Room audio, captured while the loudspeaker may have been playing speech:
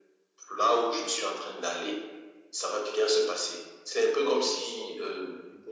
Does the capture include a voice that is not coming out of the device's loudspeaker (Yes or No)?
Yes